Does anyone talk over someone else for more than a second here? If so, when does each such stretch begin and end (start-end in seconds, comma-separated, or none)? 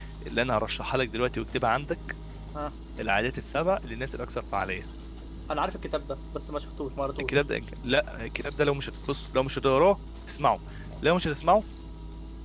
none